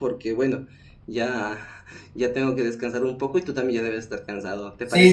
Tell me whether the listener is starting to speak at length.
Yes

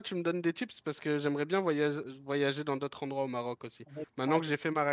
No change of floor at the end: Yes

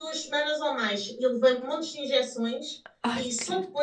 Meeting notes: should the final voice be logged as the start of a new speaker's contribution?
No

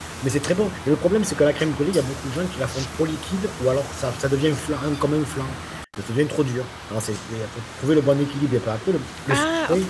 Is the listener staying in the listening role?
Yes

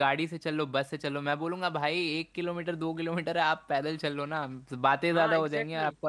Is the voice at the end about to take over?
Yes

